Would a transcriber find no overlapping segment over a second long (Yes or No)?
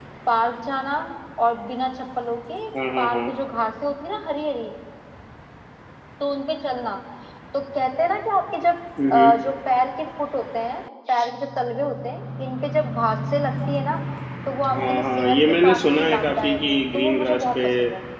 No